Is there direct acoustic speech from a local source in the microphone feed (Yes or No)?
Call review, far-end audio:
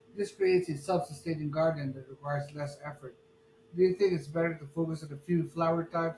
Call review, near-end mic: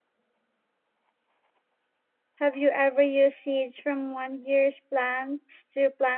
Yes